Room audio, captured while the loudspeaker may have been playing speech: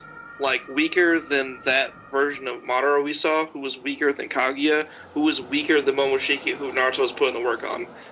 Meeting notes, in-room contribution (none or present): none